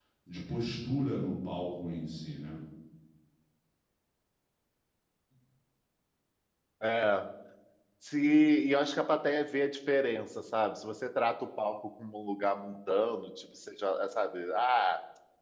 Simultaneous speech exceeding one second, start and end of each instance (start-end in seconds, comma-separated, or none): none